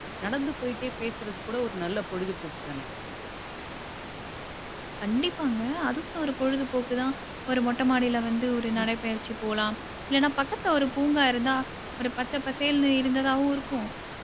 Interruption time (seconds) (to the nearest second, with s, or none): none